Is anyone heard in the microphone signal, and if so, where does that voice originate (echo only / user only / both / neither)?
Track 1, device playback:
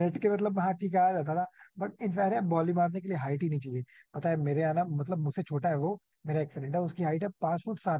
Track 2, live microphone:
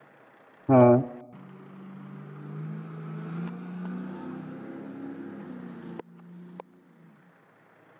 user only